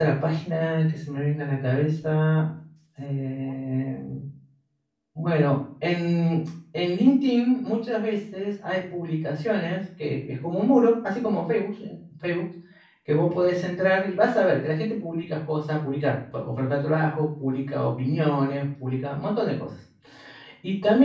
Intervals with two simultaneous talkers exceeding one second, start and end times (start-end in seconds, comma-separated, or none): none